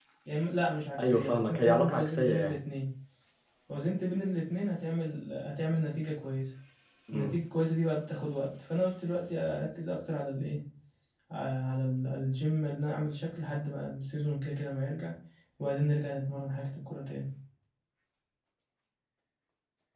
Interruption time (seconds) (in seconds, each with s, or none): 1.0 s